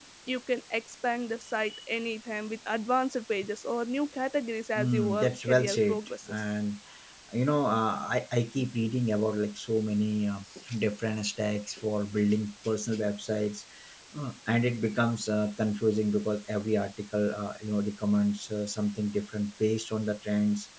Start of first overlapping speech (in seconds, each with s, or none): 4.8 s